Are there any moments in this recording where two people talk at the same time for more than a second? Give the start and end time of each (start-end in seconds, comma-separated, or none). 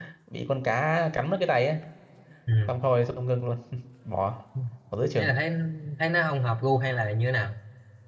none